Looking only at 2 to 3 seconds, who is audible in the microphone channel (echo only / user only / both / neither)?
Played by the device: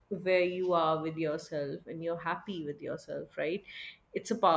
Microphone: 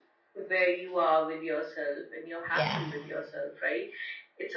both